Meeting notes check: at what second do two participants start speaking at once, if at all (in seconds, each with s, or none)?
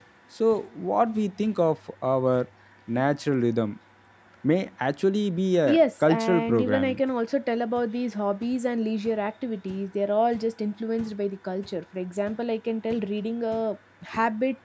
5.7 s